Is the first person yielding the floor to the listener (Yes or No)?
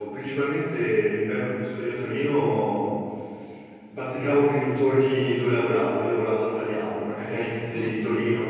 No